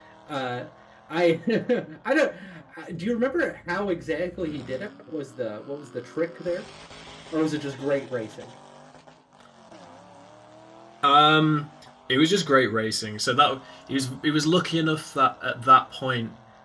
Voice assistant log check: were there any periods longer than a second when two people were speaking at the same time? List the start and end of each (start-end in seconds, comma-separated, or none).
none